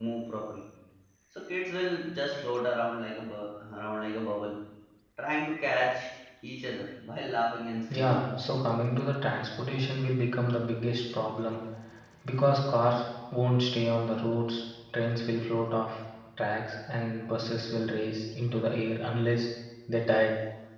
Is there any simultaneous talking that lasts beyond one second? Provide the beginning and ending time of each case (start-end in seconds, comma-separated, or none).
none